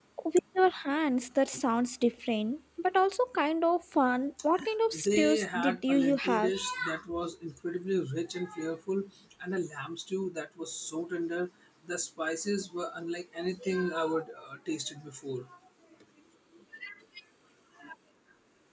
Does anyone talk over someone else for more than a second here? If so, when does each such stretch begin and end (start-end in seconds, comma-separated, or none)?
5.0-6.5